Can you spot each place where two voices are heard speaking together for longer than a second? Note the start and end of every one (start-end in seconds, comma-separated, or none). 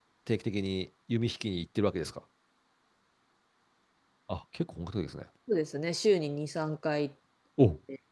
none